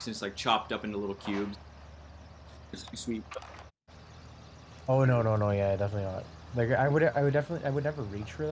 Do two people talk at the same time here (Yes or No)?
No